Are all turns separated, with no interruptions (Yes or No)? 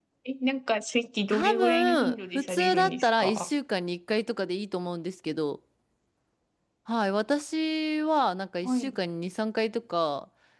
No